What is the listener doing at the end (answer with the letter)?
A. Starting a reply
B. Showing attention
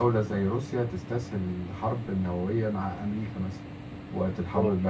B